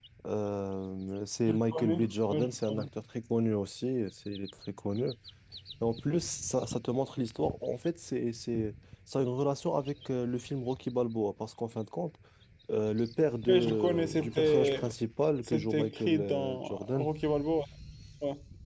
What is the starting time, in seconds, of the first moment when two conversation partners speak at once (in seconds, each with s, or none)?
1.5 s